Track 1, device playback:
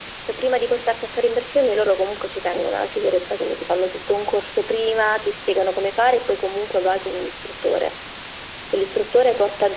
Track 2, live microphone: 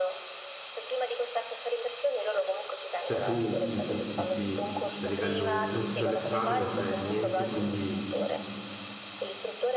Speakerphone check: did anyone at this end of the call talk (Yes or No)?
Yes